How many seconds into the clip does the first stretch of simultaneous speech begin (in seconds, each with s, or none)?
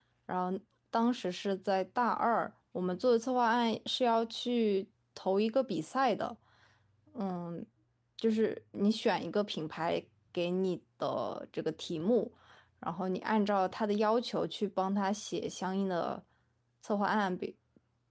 none